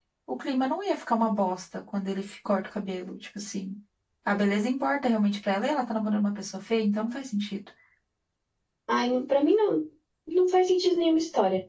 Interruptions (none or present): none